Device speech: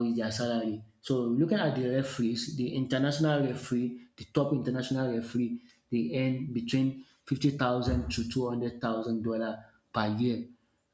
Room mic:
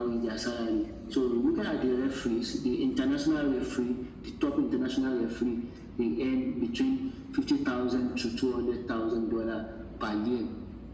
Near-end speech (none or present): none